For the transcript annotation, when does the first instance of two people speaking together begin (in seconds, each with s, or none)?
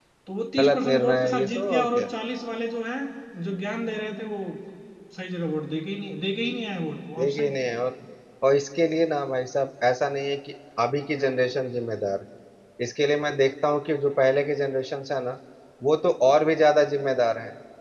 0.6 s